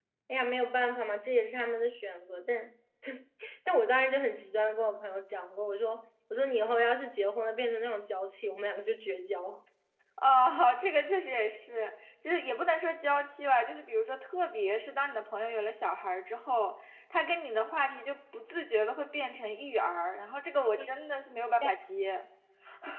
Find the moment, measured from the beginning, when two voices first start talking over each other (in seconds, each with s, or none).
none